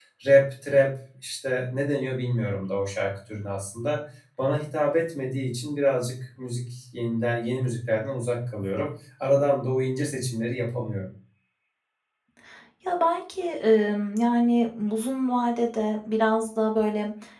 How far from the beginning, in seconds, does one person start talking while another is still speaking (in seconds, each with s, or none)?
none